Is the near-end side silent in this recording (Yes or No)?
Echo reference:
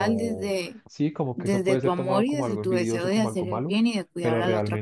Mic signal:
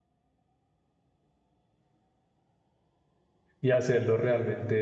No